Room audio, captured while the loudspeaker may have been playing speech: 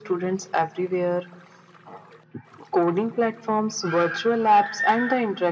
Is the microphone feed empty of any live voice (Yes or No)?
Yes